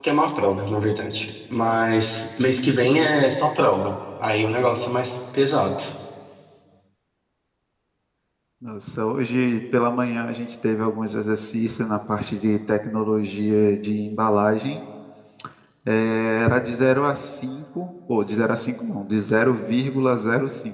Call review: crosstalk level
none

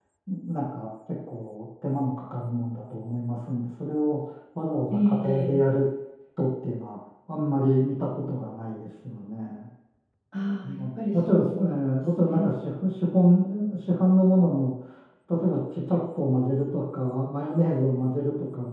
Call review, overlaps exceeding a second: present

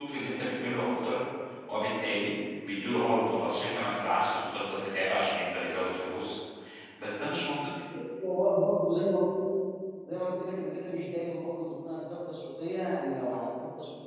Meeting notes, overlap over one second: none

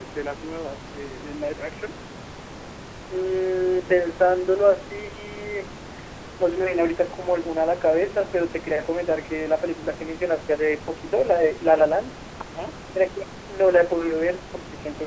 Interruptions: none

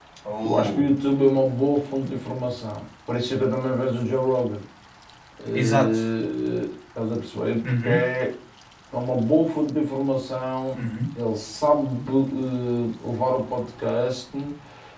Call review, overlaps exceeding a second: none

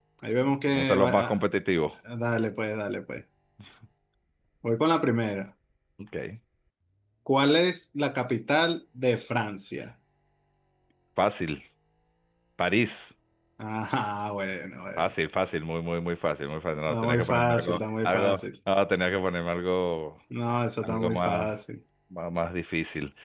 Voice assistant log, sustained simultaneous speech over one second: present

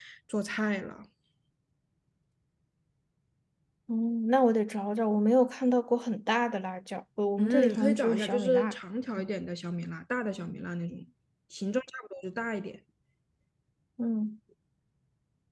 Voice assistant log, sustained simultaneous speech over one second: present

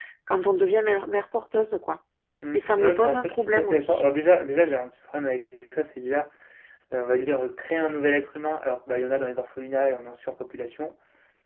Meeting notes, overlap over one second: present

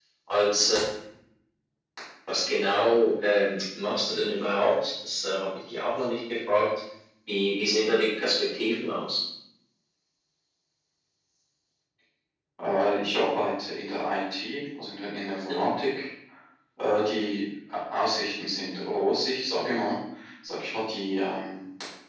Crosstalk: none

